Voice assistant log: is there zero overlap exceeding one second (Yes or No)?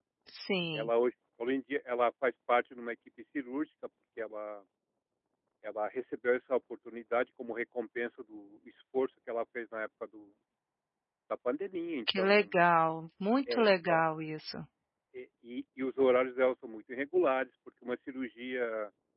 Yes